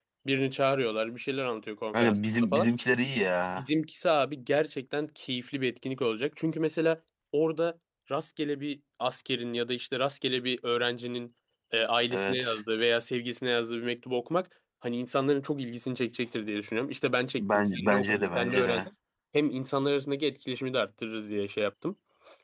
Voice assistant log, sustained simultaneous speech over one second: present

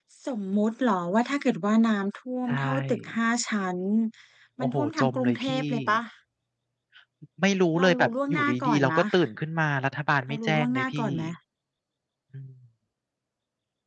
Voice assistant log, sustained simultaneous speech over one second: present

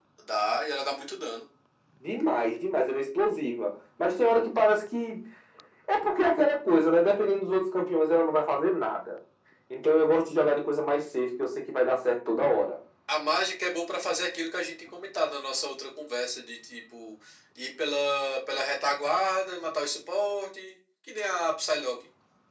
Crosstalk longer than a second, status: none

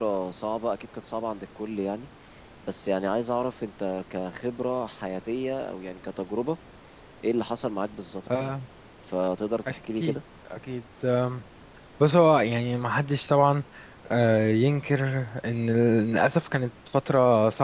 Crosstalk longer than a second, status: none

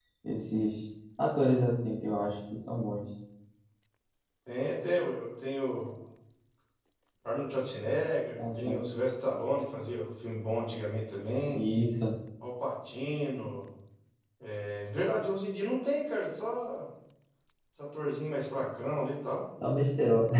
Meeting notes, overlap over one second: none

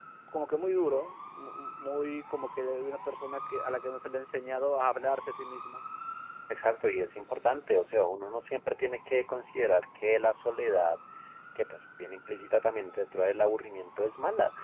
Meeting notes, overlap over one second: none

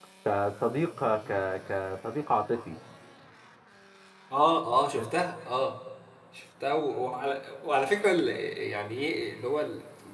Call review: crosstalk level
none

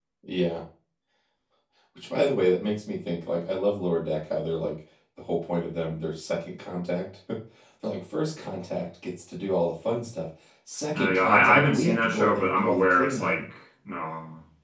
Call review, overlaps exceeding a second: present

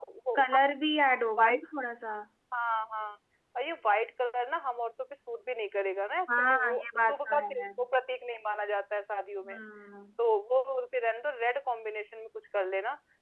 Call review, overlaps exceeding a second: present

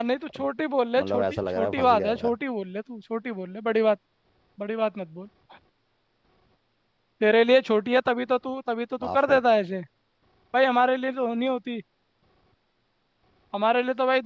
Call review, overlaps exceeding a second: present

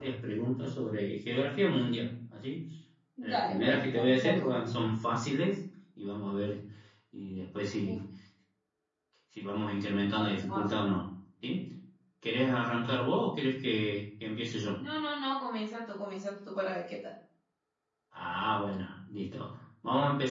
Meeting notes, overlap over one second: present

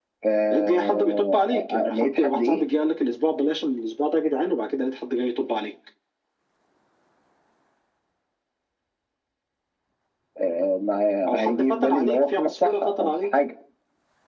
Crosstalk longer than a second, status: present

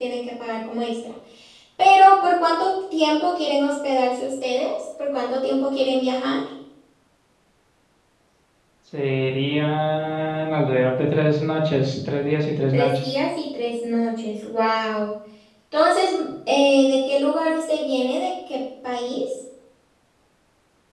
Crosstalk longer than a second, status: none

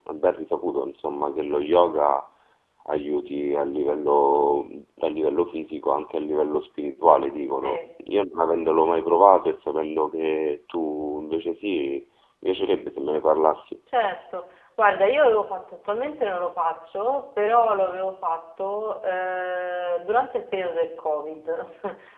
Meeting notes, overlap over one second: none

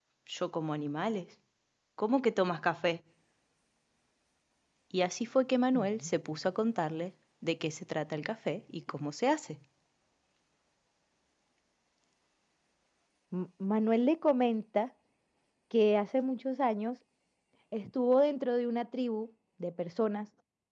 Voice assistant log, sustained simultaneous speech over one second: none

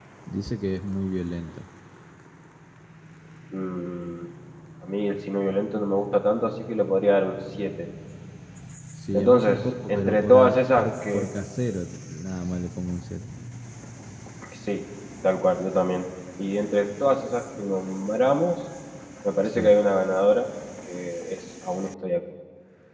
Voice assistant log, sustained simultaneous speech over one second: present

